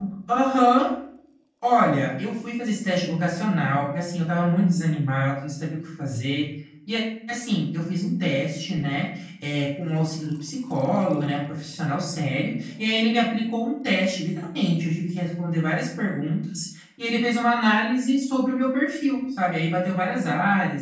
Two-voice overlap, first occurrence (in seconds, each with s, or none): none